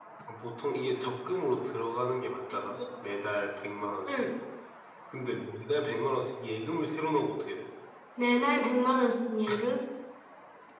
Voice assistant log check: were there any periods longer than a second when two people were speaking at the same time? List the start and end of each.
none

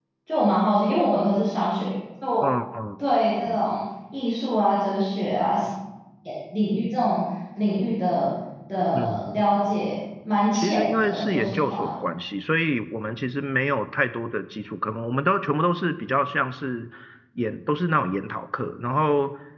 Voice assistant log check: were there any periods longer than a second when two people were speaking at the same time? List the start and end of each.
10.5-11.9

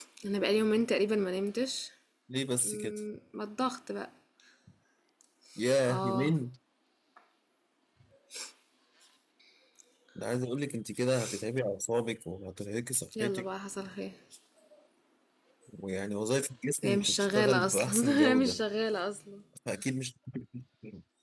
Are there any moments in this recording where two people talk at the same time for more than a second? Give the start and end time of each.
16.8-18.6

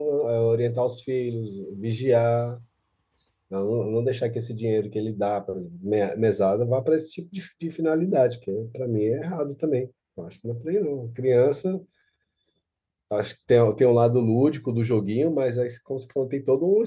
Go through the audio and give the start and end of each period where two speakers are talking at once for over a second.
none

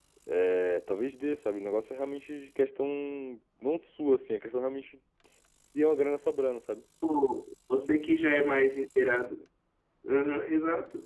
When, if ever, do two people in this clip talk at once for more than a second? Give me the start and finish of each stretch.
none

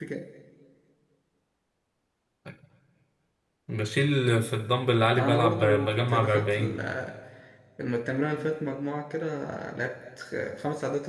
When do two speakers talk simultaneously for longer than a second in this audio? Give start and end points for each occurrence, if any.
5.2-6.7

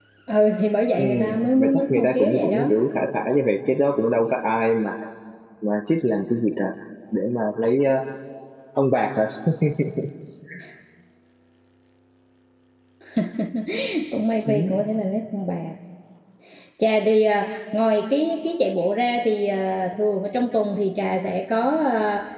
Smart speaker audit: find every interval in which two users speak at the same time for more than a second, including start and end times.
1.0-2.7

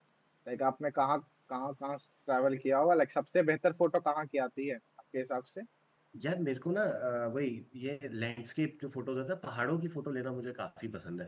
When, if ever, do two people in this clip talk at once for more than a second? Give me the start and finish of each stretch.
none

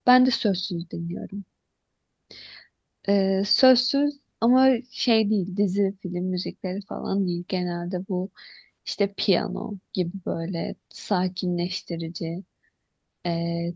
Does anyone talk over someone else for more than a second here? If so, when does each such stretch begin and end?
none

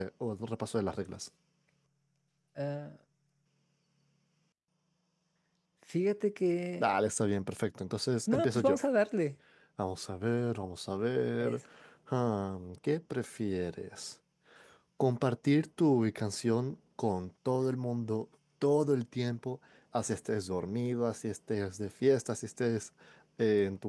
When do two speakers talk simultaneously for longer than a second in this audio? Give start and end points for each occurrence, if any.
none

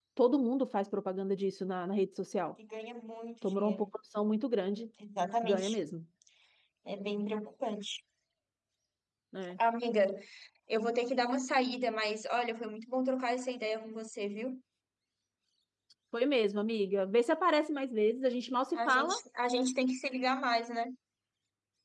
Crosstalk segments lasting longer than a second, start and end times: none

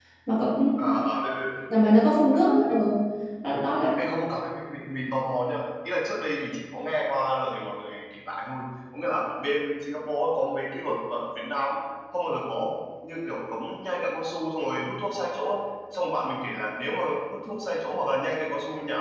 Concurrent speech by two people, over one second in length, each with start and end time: none

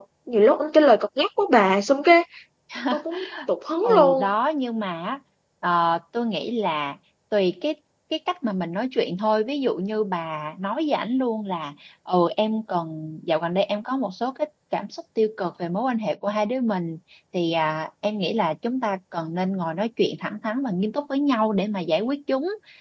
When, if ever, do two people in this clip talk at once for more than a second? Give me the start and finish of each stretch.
none

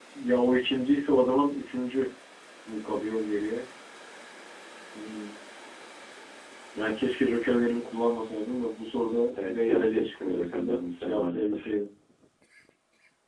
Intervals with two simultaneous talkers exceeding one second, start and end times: 9.4-11.7

